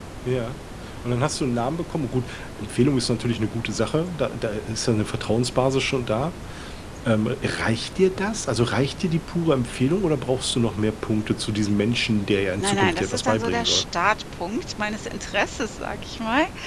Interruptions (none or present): present